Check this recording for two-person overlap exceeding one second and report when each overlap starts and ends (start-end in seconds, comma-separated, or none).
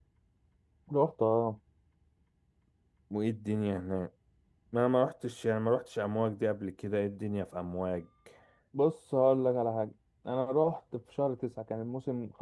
none